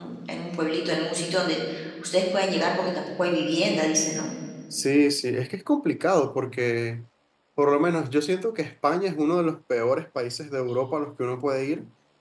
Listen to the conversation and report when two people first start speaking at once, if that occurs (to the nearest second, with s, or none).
none